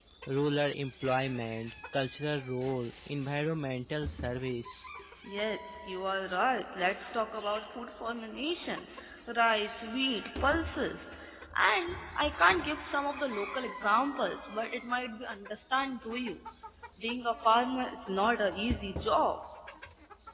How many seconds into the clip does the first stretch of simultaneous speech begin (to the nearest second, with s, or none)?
none